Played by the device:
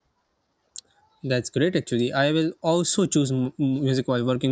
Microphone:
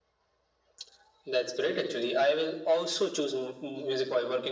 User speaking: No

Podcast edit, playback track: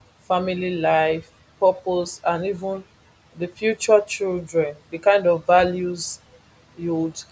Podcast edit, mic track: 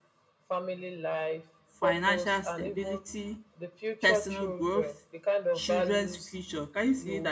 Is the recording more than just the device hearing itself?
Yes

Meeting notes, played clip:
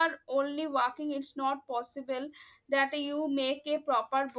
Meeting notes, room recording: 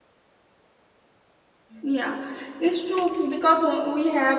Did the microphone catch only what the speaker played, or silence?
No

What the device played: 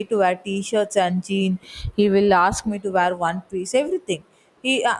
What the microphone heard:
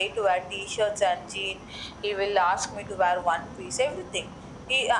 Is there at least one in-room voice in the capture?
No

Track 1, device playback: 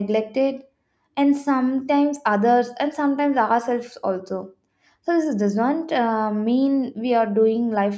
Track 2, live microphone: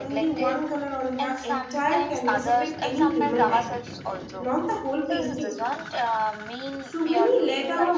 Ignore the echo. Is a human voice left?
Yes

